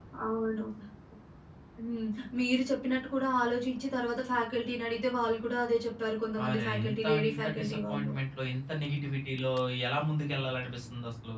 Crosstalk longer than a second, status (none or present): present